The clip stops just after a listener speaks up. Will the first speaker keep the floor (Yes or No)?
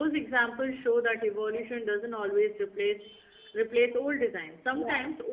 Yes